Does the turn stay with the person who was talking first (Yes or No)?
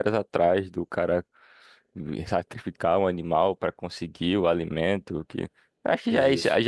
Yes